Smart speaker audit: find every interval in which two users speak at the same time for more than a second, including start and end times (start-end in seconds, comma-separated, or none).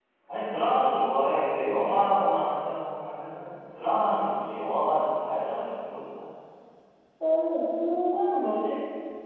none